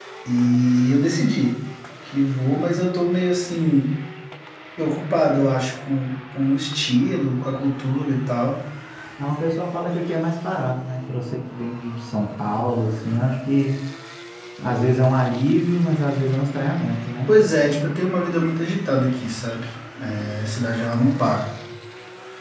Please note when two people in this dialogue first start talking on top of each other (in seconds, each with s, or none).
none